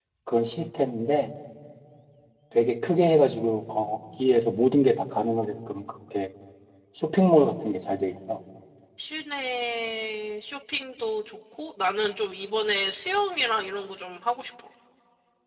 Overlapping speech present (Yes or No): No